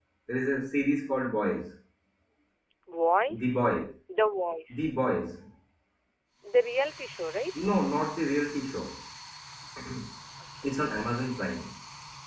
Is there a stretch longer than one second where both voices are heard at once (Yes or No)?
No